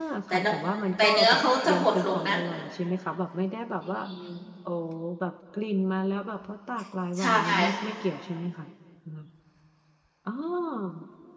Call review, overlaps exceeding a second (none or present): present